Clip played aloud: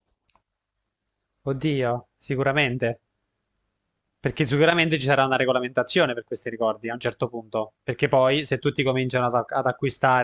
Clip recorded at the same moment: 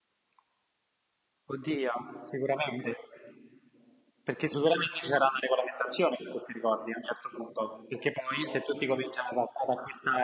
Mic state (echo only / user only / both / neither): echo only